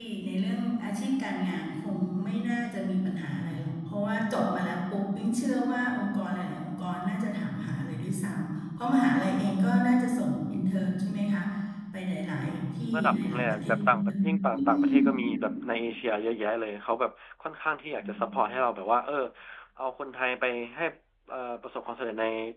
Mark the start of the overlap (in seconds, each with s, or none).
12.9 s